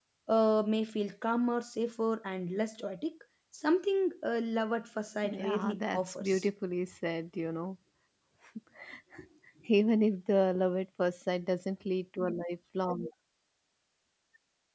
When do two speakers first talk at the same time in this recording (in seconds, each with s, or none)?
5.2 s